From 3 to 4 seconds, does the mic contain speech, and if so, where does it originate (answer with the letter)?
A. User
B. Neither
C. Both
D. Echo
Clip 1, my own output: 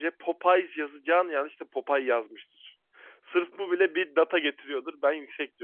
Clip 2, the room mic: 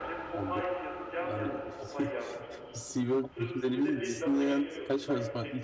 C